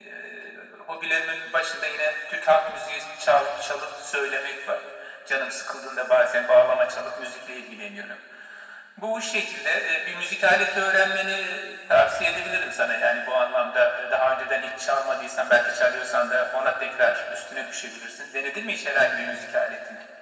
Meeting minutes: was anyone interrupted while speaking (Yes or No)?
No